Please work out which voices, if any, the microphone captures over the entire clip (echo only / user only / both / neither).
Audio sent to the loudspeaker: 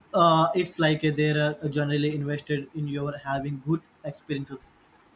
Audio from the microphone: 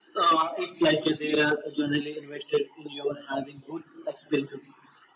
echo only